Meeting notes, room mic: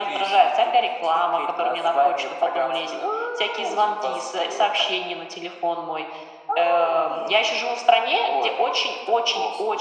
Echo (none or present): present